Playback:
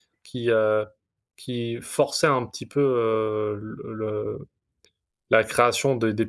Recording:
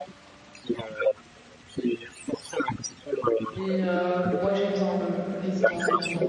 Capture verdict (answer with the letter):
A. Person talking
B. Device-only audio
A